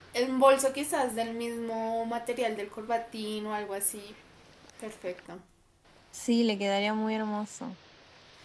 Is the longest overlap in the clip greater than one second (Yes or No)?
No